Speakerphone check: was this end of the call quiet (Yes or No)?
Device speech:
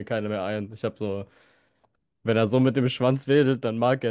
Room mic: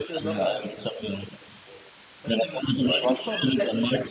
No